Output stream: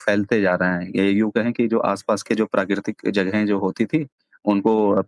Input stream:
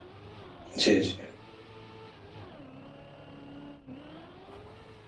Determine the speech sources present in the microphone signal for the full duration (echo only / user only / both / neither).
user only